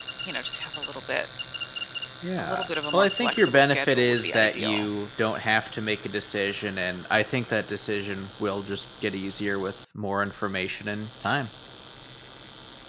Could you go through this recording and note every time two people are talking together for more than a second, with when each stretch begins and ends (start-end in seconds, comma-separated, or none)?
2.4-4.9